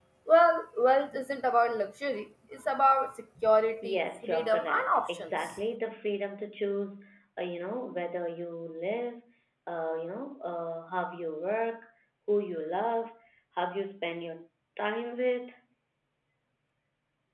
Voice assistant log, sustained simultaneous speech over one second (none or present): present